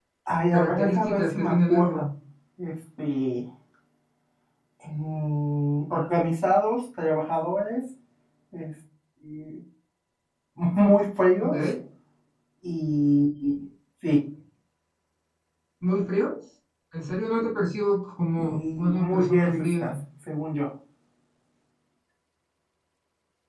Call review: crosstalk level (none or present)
present